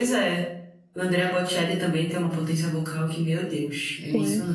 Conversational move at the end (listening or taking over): taking over